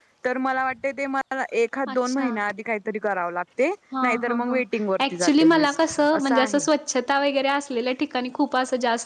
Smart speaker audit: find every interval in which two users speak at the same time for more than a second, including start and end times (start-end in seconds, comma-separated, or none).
5.1-6.6